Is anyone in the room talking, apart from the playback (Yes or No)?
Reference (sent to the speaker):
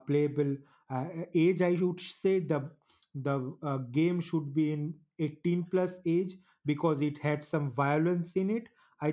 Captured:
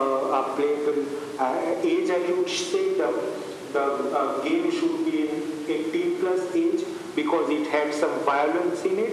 No